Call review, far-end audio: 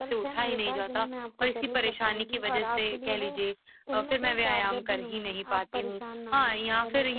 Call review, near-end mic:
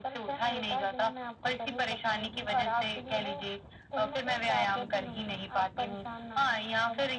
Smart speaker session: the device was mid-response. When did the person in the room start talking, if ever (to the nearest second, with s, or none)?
none